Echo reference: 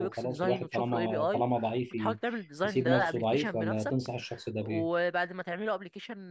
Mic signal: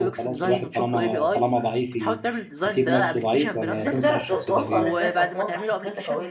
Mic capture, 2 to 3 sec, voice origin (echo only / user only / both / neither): echo only